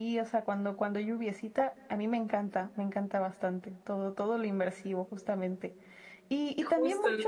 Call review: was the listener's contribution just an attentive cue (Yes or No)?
Yes